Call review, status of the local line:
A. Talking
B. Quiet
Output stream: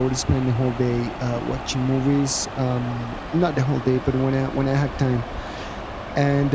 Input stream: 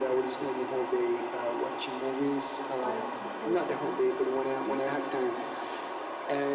A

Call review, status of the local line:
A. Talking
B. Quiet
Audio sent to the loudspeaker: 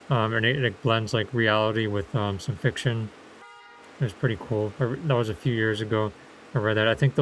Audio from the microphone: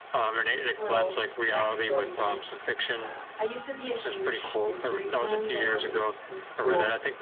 A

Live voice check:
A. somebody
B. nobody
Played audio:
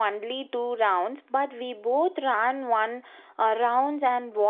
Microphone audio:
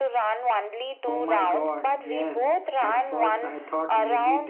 A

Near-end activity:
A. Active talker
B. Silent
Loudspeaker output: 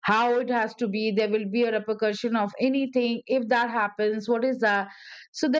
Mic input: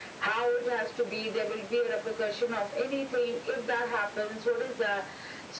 B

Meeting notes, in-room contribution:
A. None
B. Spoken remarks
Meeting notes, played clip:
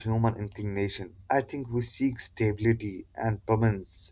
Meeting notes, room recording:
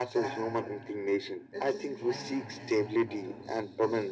B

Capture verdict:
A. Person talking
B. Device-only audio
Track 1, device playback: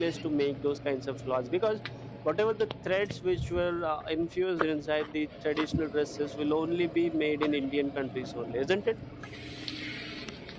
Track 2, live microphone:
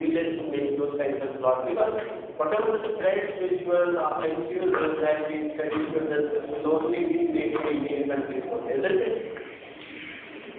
B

